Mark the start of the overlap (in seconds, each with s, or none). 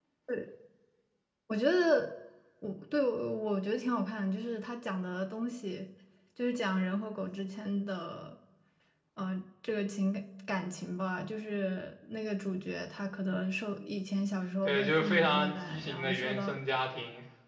14.6 s